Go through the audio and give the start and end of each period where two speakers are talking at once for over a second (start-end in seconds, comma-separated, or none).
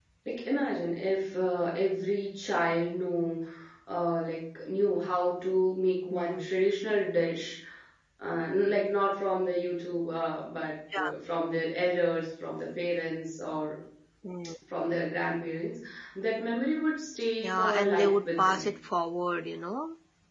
17.4-18.7